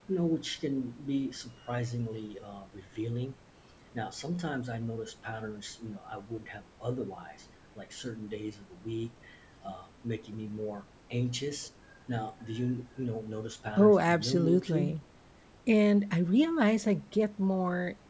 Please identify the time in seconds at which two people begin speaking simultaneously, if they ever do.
13.8 s

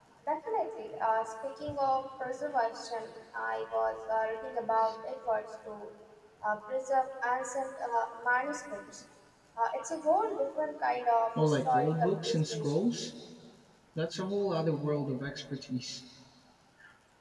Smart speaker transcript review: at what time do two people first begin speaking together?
11.4 s

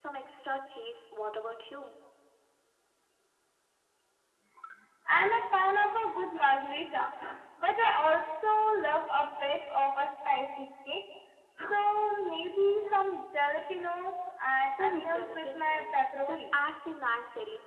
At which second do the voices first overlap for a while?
14.7 s

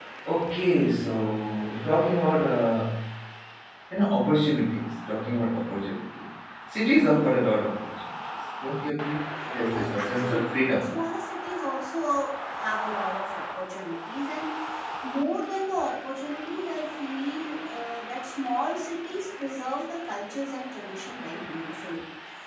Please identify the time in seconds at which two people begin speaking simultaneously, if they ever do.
9.6 s

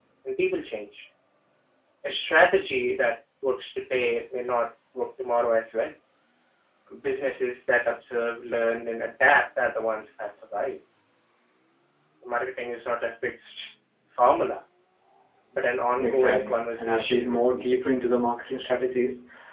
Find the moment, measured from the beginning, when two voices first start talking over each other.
16.0 s

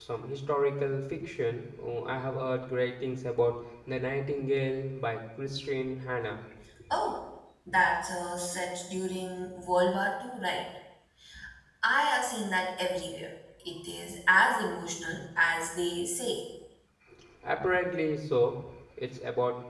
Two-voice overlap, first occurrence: none

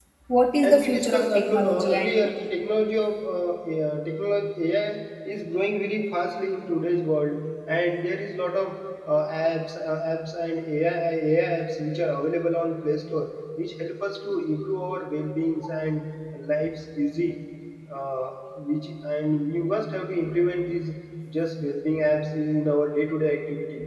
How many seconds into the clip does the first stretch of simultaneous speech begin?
0.6 s

